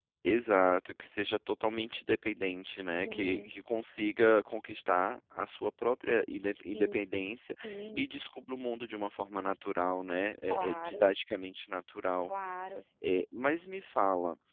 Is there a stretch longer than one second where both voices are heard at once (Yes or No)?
No